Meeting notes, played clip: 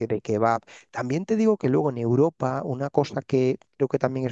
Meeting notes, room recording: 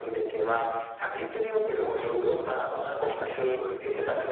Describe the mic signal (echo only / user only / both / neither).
both